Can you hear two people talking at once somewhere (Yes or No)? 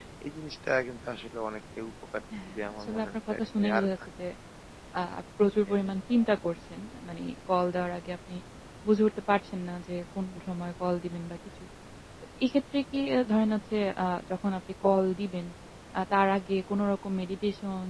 Yes